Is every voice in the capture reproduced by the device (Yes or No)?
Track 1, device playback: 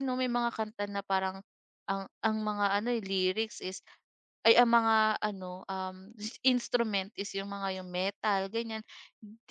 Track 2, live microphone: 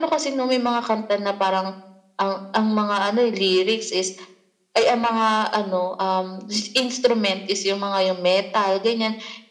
Yes